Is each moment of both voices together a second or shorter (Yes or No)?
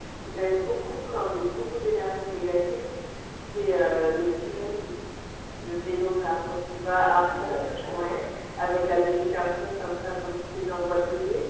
No